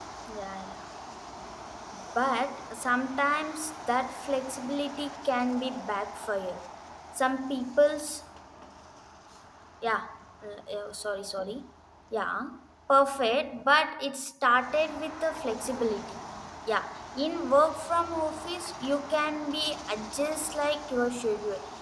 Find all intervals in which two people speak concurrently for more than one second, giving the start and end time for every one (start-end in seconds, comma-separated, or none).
none